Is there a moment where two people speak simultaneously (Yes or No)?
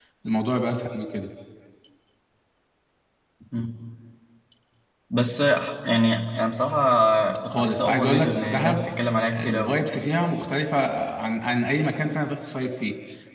Yes